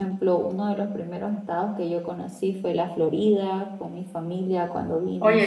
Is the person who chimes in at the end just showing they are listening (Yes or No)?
No